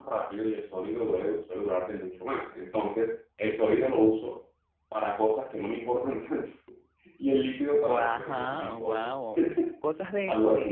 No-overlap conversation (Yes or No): No